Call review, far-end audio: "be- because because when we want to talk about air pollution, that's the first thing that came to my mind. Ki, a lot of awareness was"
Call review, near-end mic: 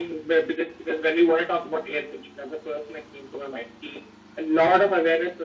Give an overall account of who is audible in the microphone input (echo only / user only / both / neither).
echo only